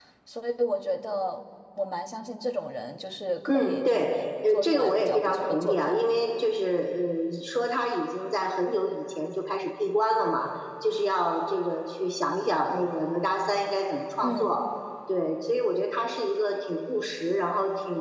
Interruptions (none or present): present